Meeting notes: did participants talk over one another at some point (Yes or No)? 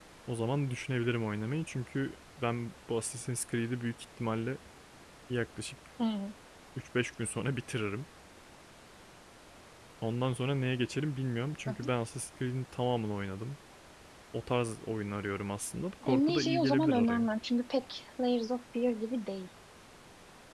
Yes